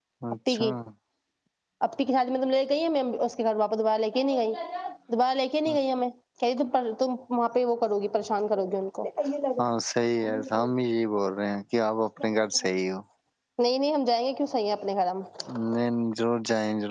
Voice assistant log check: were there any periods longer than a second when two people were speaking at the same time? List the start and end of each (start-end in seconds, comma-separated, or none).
none